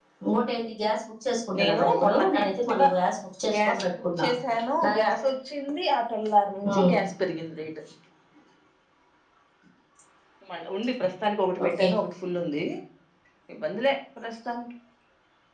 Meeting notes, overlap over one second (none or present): present